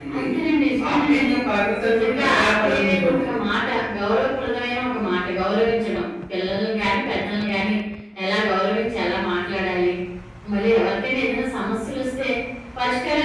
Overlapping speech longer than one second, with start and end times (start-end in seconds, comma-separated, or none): 1.9-3.4